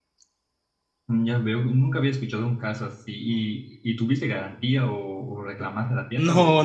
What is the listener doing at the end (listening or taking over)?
taking over